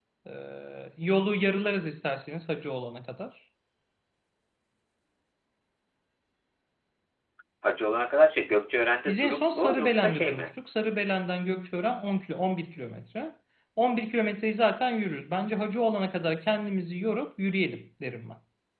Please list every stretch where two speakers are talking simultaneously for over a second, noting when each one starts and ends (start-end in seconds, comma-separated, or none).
9.1-10.6